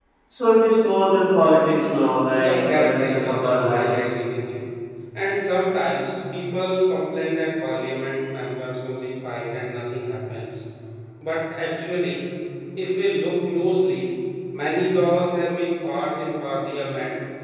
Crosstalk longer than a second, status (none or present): present